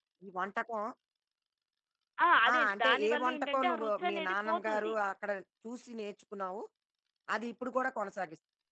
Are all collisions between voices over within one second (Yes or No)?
No